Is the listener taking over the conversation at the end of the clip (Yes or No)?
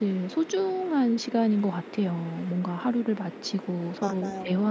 No